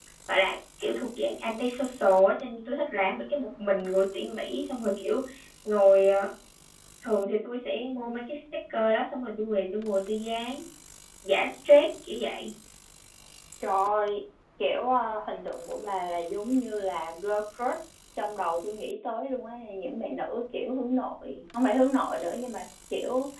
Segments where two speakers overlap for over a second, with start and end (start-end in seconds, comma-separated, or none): none